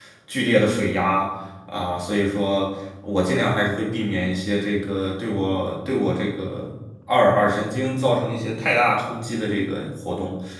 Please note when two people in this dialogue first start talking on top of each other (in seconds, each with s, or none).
none